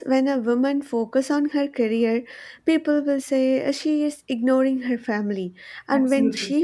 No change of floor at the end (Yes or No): Yes